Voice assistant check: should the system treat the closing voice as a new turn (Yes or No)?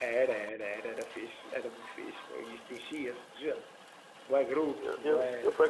Yes